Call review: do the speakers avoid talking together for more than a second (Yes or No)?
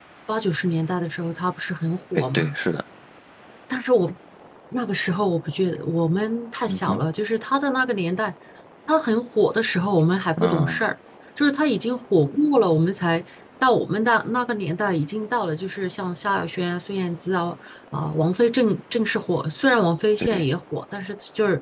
Yes